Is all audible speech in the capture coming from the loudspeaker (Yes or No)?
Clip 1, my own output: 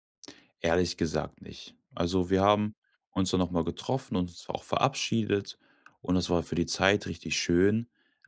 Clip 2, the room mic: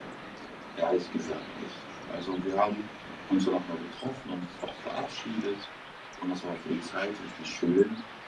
Yes